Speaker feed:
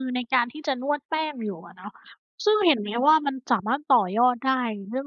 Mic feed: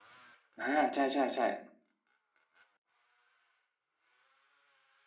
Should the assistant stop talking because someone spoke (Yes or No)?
Yes